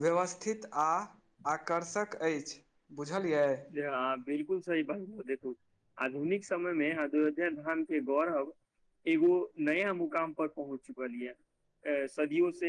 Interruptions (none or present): none